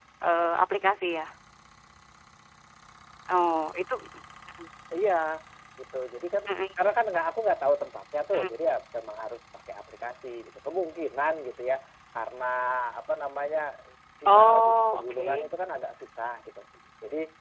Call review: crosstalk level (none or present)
present